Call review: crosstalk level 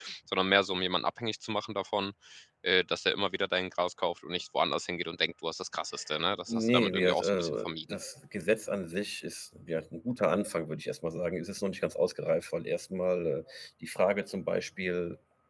present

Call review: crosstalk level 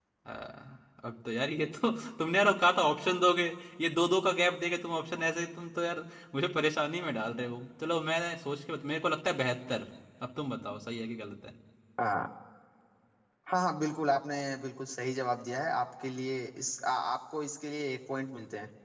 none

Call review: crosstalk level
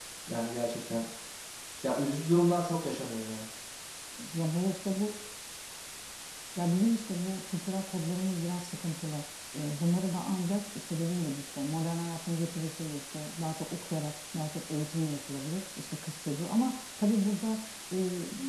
none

